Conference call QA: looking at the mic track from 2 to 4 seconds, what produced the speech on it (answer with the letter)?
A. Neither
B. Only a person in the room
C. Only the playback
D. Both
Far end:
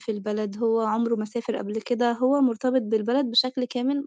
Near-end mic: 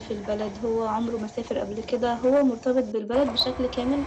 C